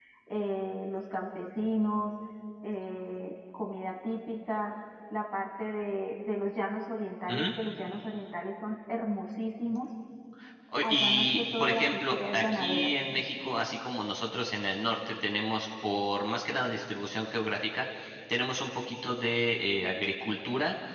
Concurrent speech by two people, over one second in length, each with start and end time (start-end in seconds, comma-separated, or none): 10.8-12.9